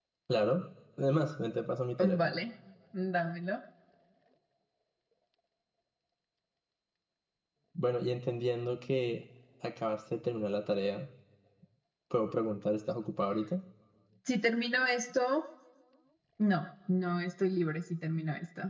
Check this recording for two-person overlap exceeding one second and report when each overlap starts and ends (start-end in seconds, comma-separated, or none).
none